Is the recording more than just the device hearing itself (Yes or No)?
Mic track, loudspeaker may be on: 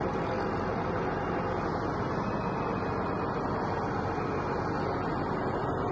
No